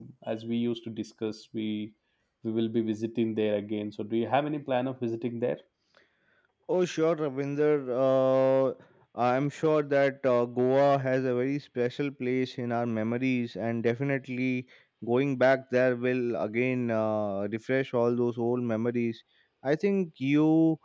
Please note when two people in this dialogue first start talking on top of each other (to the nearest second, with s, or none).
none